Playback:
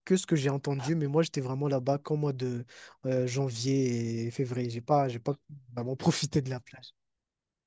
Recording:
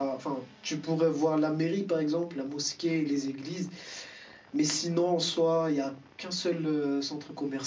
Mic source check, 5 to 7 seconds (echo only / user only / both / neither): user only